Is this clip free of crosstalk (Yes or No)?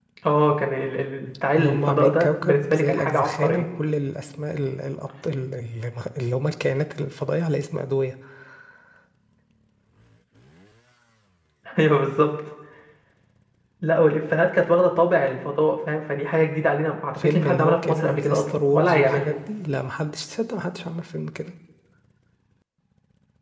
No